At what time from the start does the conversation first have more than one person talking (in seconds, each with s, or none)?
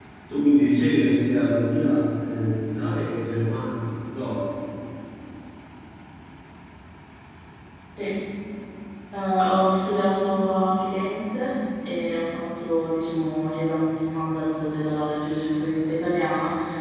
none